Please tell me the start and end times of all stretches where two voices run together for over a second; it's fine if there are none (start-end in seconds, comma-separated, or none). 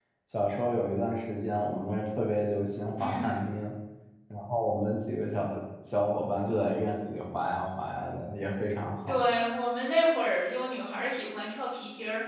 none